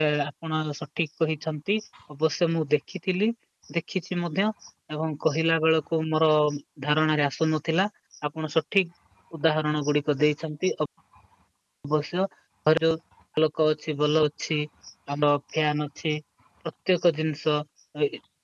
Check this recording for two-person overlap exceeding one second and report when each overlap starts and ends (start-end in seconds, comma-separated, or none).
none